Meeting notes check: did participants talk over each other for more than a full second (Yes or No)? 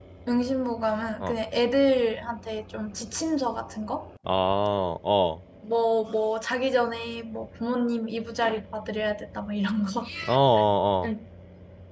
No